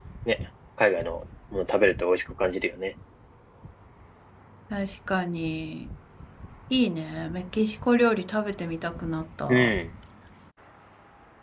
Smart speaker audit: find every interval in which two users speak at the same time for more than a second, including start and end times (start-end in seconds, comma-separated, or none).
none